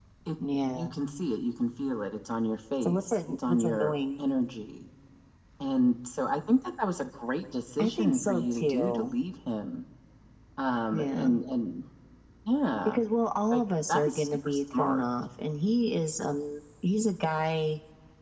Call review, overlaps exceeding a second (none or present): present